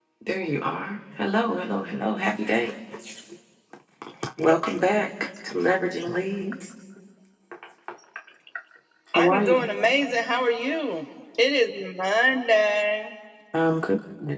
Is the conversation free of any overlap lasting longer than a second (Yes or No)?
Yes